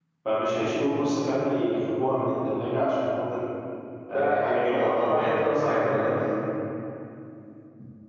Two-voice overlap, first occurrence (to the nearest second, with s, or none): 4 s